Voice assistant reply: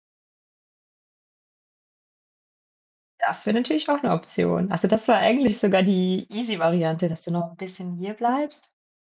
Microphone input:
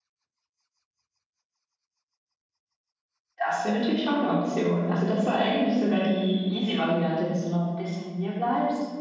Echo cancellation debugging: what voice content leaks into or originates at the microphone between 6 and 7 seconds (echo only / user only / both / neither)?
both